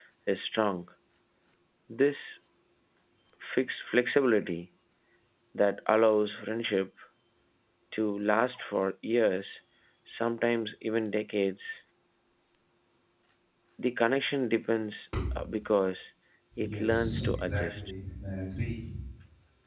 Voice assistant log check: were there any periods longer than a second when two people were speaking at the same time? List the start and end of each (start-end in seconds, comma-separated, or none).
16.6-17.8